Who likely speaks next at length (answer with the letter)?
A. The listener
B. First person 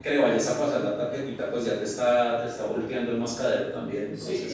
A